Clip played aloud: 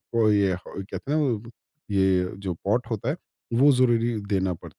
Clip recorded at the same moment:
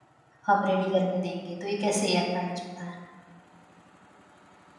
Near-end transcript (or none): हम रेडी करके देंगे, तो ये कैसे अ, मैनेज होता है?